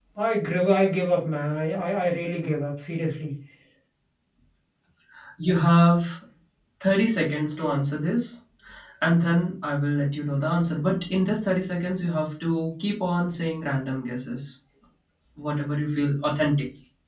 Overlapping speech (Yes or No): No